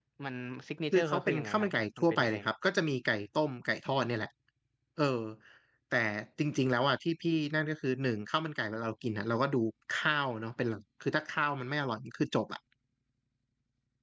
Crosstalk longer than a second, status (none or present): present